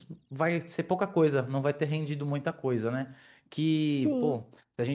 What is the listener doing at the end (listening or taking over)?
listening